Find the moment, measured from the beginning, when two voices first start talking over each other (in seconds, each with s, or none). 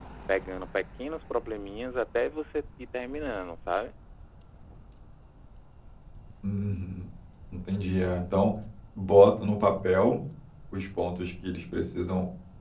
none